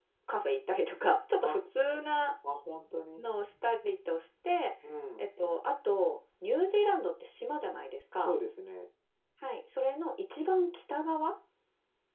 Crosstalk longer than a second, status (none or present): none